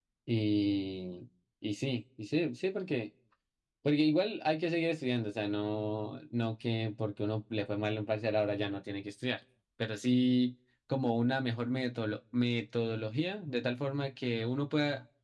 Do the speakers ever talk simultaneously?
No

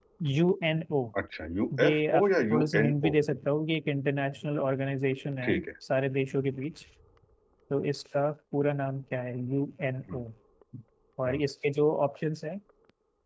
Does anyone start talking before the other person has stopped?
Yes, from 1.8 s

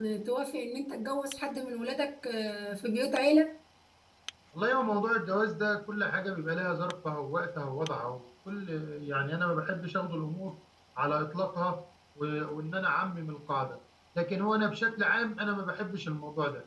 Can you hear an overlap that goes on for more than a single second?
No

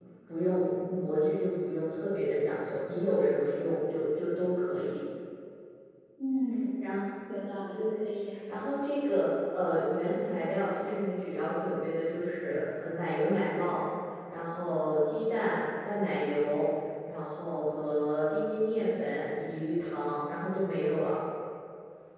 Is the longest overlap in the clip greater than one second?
No

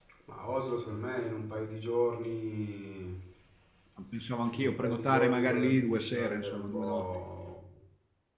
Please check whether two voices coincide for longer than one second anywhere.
Yes, from 4.5 s

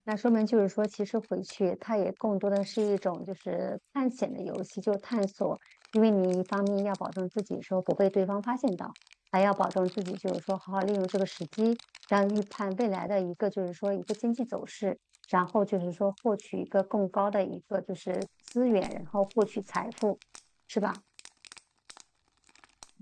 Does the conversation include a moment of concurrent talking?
No

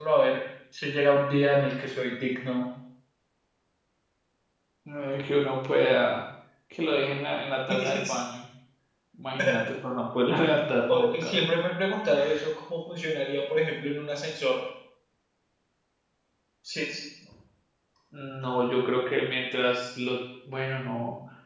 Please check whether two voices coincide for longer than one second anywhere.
No

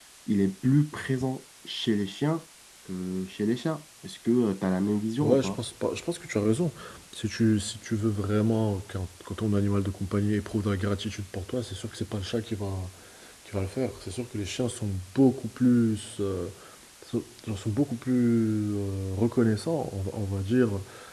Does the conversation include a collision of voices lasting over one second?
No

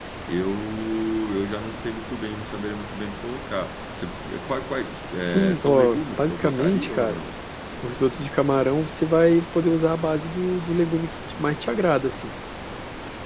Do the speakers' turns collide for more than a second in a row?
Yes, from 5.2 s

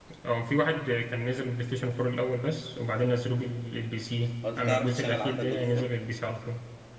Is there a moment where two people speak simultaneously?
Yes, from 4.4 s

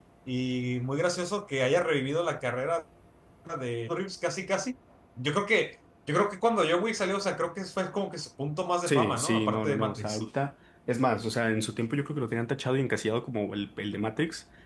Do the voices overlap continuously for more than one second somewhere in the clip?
Yes, from 8.9 s

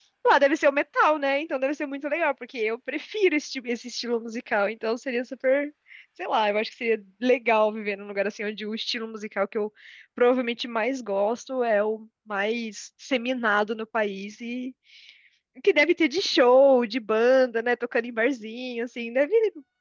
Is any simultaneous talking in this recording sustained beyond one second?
No

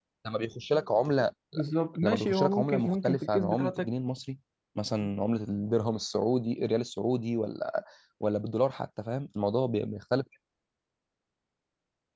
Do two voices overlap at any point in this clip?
Yes, from 2.0 s

